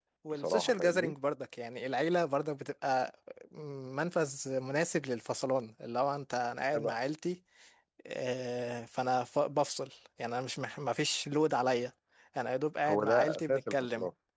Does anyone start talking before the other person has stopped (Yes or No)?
Yes